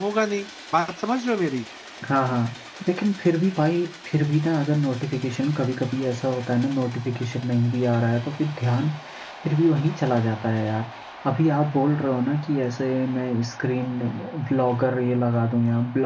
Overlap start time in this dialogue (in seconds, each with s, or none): none